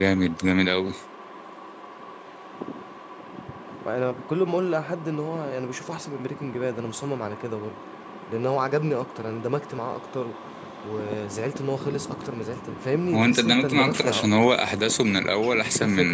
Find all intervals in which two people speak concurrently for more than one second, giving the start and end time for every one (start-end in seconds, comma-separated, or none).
13.1-14.4